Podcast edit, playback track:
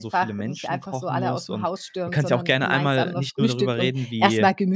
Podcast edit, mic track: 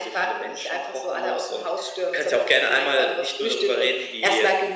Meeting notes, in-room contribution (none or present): none